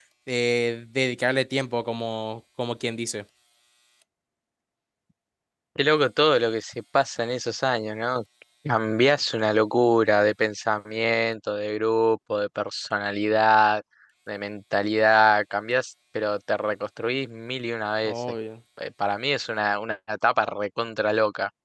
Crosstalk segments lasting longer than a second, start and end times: none

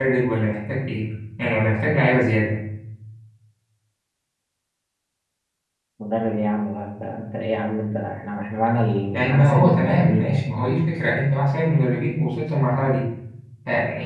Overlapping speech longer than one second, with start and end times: 9.1-10.4

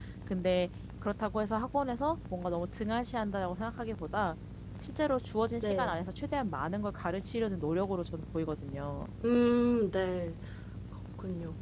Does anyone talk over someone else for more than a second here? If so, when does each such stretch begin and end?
none

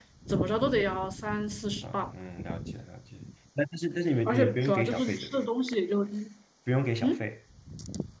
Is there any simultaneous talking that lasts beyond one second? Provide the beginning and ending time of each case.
4.2-5.5

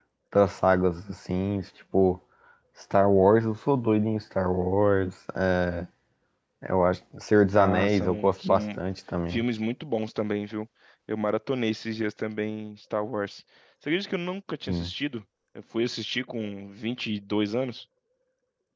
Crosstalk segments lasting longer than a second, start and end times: 7.5-8.8

